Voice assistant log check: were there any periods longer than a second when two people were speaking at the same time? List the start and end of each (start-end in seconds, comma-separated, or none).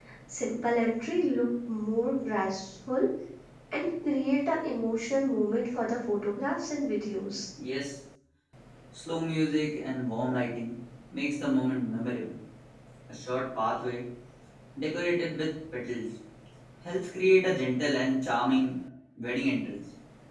none